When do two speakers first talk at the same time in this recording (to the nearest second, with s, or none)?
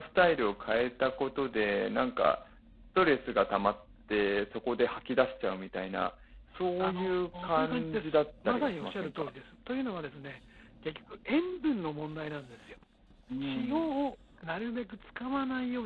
7 s